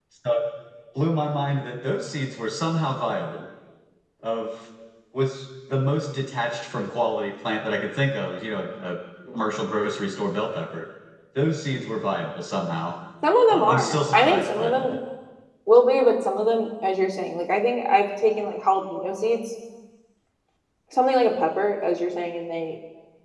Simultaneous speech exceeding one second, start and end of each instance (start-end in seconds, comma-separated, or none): 13.5-14.9